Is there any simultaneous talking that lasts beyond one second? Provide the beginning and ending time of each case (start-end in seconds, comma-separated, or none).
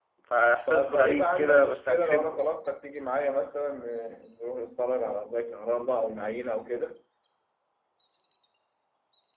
0.7-2.4